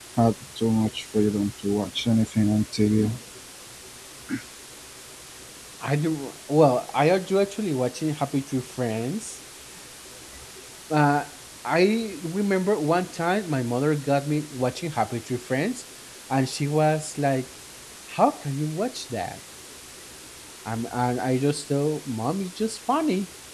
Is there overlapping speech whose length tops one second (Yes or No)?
No